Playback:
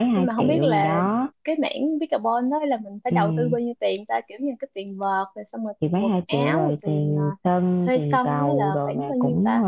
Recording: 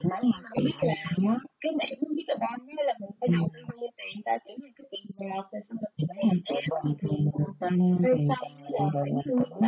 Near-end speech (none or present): none